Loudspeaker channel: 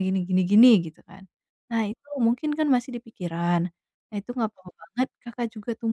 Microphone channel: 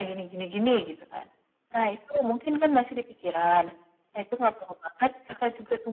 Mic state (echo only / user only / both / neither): echo only